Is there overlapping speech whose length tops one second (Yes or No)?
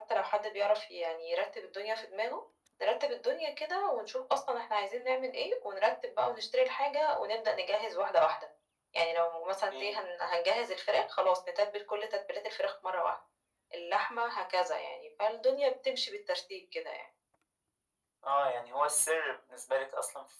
No